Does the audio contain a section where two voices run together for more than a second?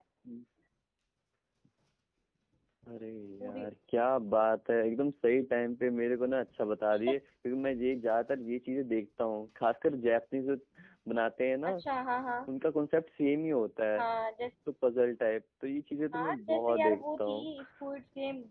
Yes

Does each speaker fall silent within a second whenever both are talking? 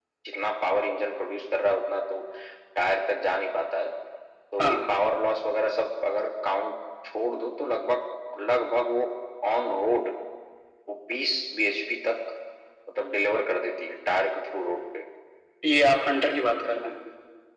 Yes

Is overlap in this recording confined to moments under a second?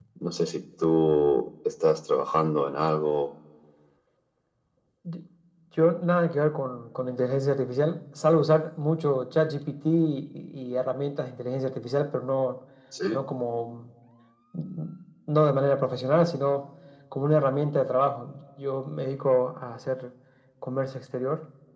Yes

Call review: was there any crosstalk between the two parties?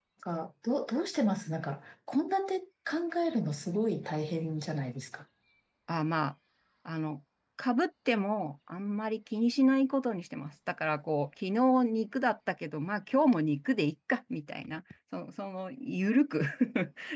No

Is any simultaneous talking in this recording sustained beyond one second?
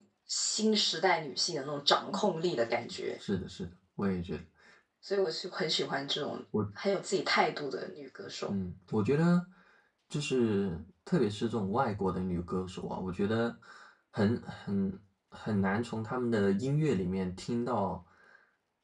No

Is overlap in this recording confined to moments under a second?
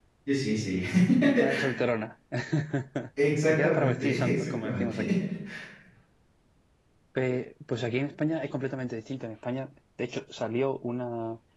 No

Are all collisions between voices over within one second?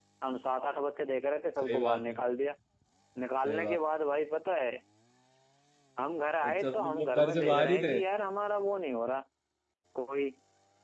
No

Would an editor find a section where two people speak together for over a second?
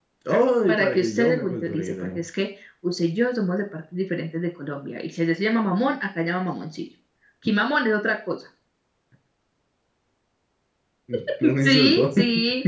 Yes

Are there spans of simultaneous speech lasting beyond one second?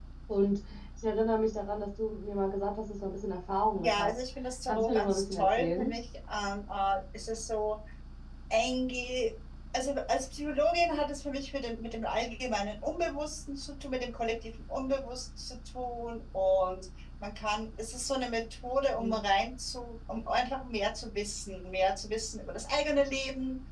Yes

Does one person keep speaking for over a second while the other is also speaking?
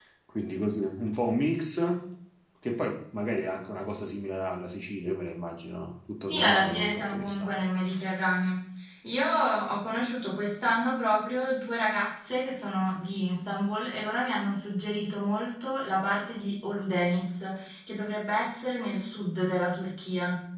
Yes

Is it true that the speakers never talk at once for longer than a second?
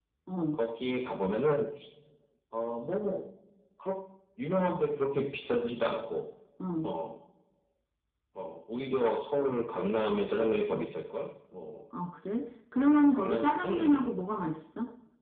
No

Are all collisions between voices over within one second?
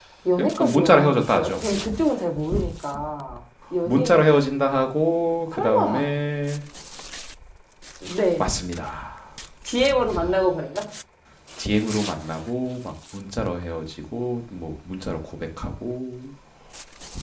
No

